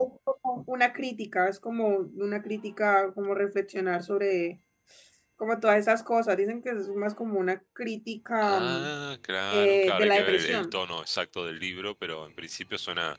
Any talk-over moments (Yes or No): Yes